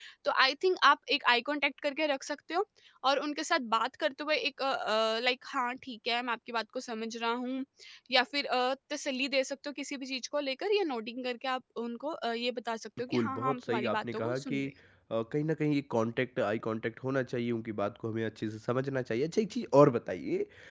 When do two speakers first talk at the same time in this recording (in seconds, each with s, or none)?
13.1 s